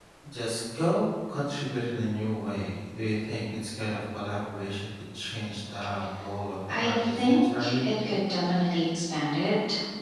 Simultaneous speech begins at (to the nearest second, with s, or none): 7 s